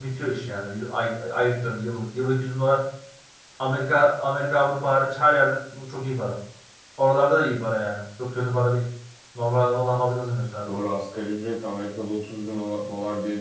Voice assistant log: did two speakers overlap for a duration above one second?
No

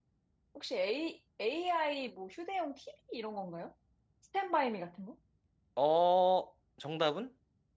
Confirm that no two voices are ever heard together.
Yes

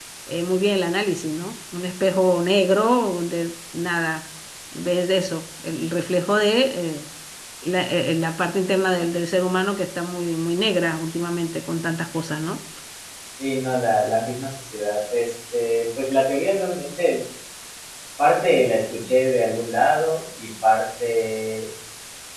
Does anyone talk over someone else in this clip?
No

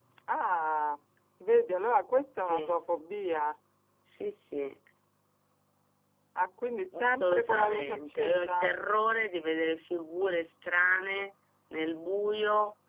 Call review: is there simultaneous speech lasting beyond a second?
Yes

